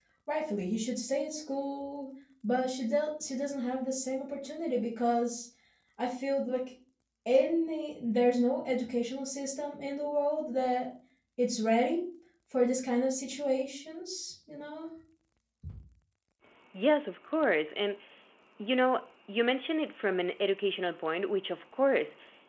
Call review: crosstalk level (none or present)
none